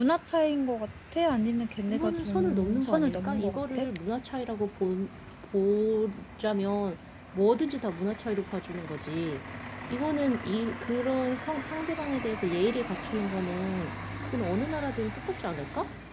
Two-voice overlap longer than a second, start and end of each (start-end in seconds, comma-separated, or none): 1.9-3.9